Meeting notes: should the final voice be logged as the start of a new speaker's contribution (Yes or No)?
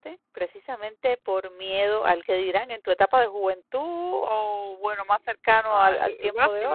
Yes